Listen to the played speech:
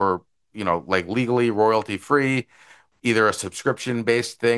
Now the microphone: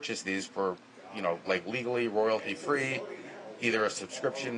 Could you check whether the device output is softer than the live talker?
No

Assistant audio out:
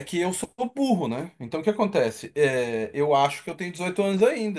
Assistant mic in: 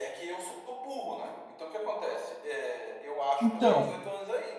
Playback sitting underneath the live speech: Yes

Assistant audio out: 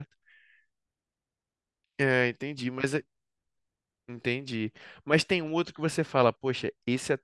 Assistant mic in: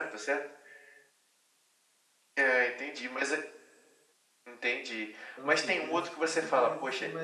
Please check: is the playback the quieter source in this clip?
No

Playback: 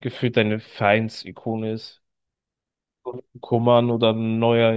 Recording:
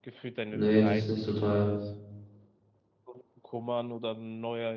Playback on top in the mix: No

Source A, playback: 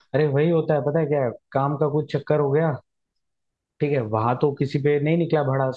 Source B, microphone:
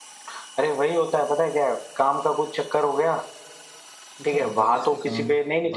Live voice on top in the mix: No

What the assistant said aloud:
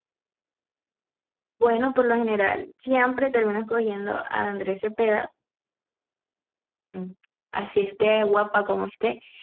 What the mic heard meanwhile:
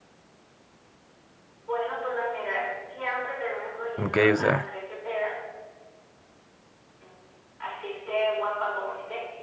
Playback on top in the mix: No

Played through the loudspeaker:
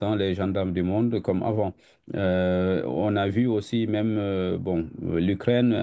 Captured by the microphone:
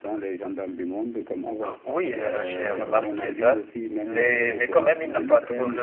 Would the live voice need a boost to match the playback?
No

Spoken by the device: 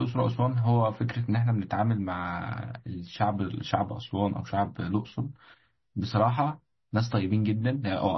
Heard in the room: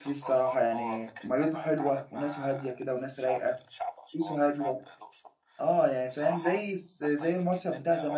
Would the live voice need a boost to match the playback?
No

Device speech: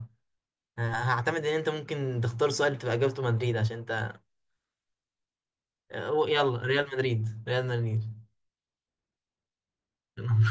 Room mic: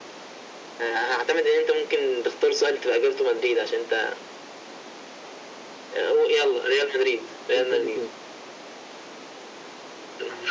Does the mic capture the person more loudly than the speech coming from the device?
No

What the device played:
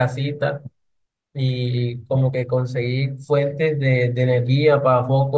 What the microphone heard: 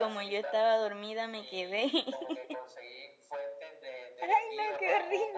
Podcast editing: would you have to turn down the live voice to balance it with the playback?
Yes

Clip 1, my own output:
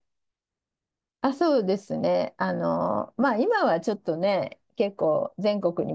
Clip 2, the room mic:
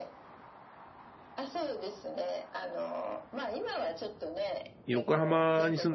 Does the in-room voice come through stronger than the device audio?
Yes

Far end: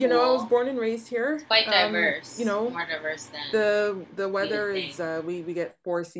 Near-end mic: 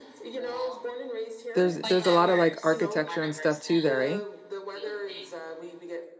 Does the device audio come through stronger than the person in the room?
No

